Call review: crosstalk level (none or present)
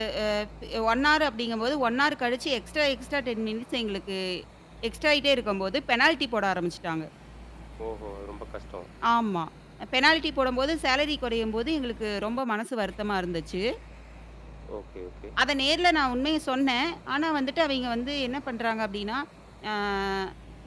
none